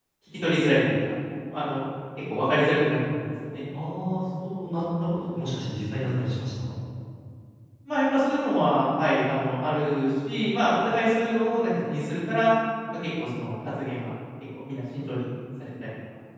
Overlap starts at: none

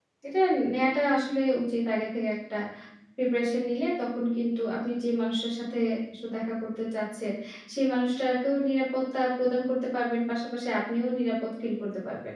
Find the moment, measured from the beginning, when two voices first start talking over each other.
none

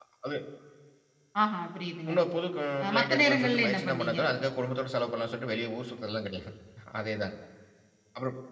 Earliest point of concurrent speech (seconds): 3 s

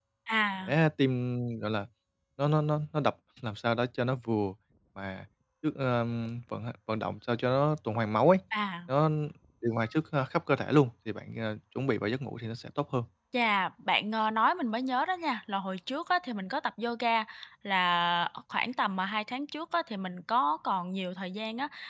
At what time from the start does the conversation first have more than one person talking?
none

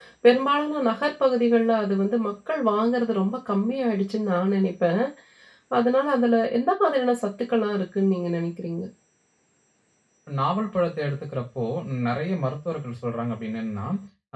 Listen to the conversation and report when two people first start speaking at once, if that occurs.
none

